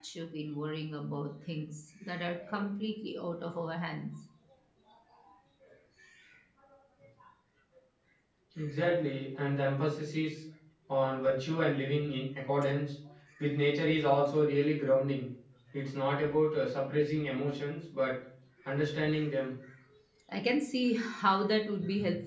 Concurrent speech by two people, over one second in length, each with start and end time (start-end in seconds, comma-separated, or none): none